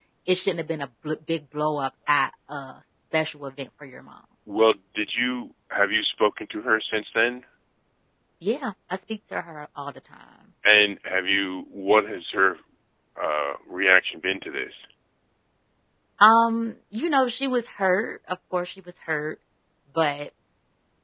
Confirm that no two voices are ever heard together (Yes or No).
Yes